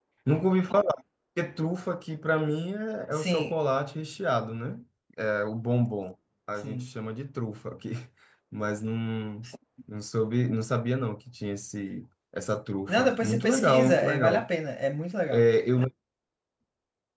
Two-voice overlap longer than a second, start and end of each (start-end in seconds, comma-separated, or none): 12.9-14.5